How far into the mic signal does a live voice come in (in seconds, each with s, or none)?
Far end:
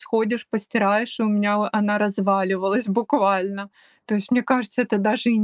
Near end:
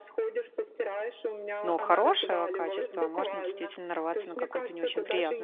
1.6 s